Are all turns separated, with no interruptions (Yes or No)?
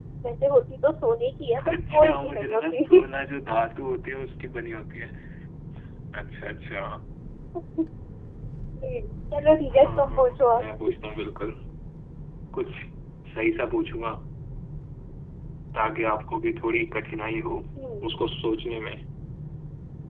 No